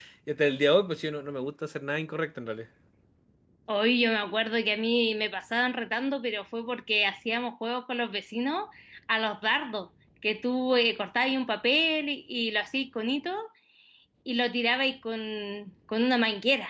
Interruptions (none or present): none